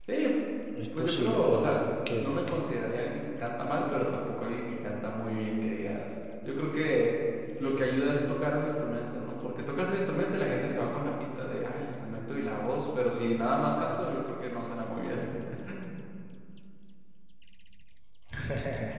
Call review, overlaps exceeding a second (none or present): present